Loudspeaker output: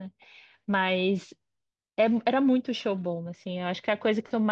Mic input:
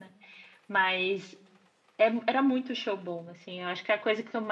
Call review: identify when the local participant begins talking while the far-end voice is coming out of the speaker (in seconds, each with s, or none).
none